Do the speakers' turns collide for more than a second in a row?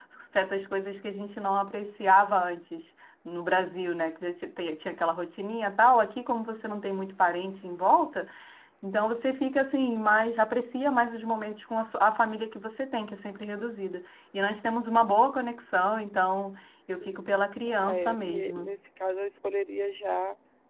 Yes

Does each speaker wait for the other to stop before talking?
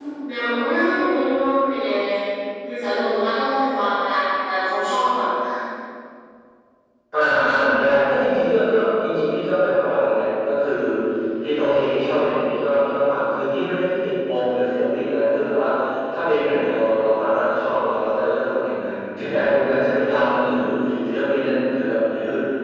Yes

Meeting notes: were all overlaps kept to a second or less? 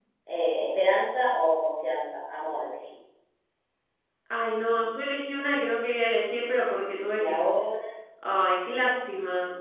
Yes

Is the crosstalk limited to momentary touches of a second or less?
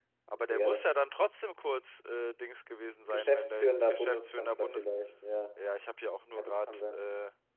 No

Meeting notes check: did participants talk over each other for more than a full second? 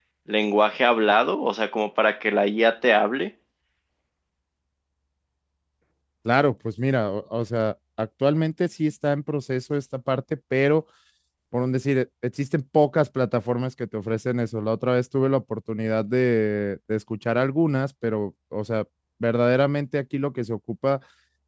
No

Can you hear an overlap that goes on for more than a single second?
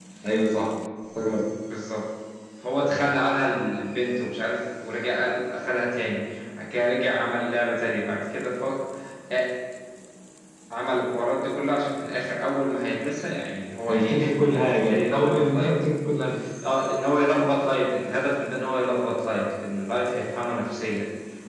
Yes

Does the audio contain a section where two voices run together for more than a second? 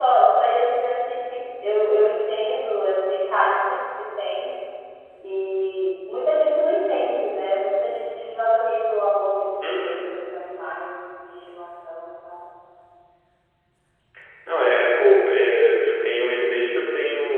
No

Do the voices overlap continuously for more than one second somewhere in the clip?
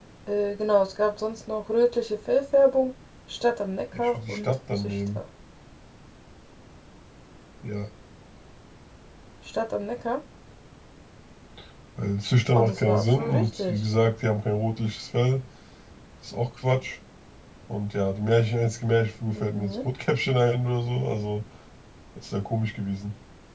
Yes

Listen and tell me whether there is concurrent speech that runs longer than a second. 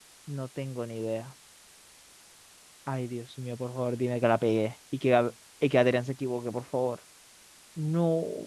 No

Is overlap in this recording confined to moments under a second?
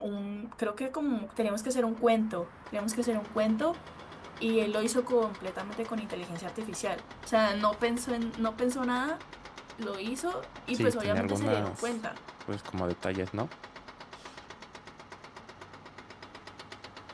No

